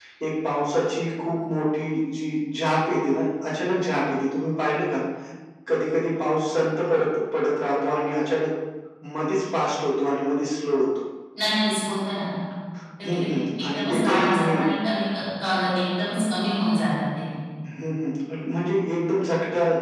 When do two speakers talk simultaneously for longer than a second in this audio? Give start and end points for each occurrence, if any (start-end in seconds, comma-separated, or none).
13.1-14.6